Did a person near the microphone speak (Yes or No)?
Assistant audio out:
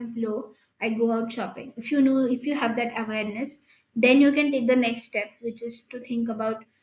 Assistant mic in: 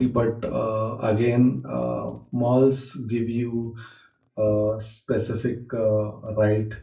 Yes